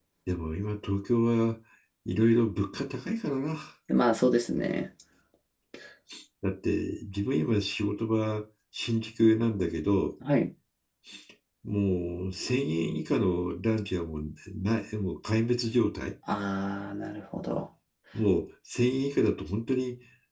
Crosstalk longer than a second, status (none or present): none